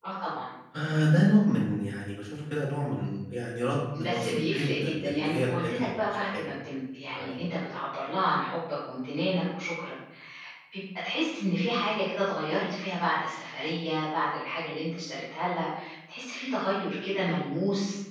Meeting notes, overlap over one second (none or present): present